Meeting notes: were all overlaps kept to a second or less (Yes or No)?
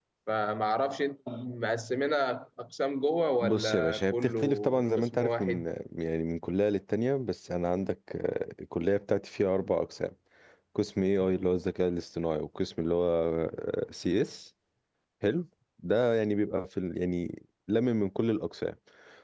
No